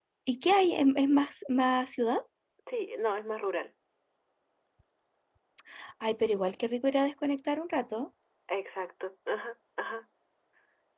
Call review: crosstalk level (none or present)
none